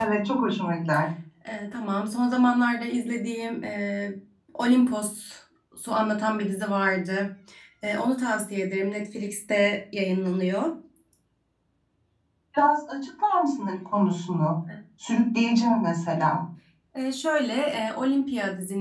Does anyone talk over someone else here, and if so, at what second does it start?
none

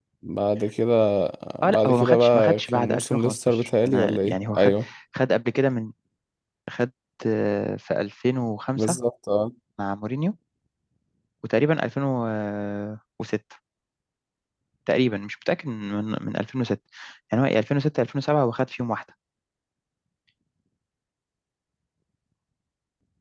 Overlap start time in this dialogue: 1.7 s

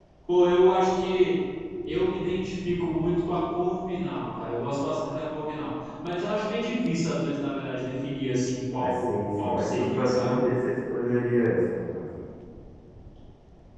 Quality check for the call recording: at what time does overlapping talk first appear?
8.7 s

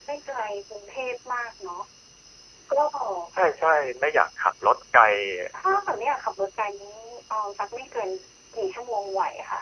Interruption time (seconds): none

